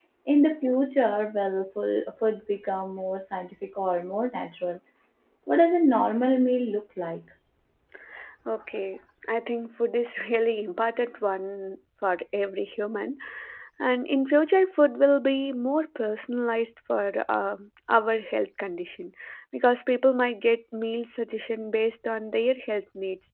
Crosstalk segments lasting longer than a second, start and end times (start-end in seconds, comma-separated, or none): none